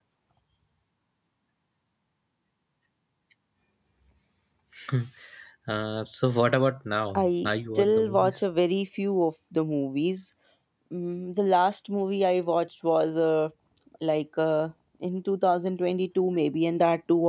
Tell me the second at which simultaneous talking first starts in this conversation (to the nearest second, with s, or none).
7 s